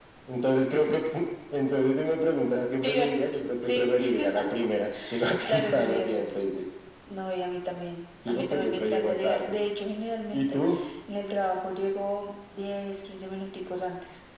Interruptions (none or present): present